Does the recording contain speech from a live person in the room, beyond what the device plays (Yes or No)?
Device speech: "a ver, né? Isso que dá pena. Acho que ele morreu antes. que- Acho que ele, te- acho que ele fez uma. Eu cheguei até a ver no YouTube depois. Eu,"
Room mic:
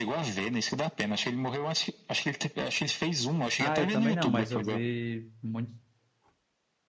Yes